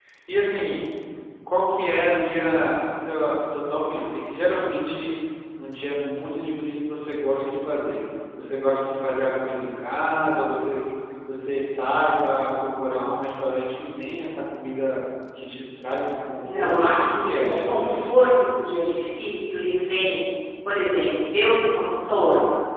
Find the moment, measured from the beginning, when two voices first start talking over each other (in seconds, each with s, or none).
16.4 s